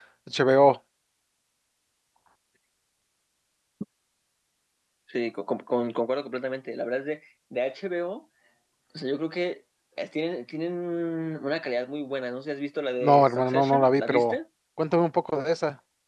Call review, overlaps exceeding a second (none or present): present